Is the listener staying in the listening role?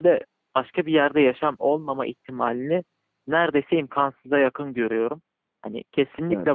Yes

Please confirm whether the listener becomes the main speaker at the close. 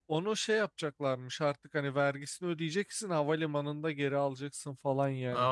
Yes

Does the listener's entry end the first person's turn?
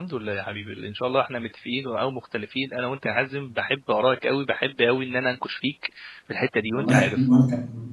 Yes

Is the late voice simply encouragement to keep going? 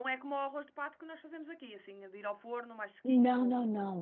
No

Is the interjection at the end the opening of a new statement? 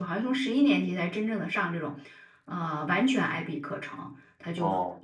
No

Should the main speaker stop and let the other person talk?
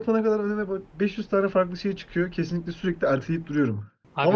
No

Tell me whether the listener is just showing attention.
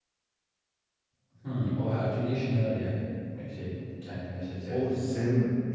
No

